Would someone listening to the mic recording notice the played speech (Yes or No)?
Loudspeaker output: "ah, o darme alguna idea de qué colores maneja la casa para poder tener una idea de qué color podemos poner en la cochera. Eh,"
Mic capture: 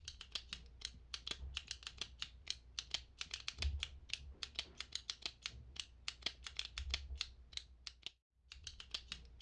No